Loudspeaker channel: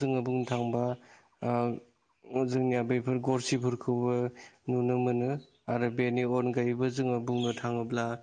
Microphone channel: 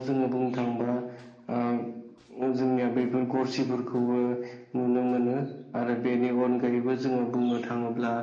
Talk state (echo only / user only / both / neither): echo only